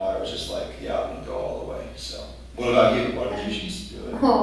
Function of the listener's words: taking over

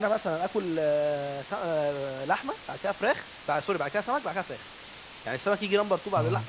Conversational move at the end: listening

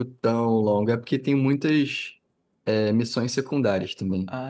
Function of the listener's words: taking over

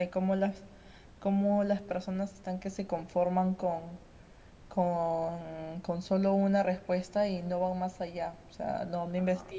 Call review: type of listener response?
listening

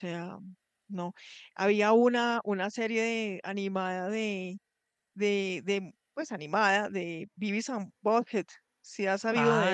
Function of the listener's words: taking over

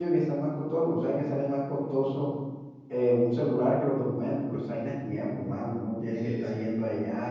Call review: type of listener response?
listening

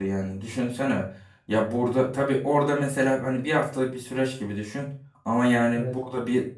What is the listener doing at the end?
listening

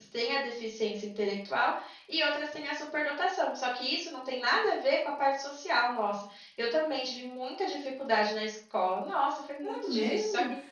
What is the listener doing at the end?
taking over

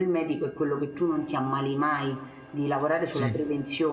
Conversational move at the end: listening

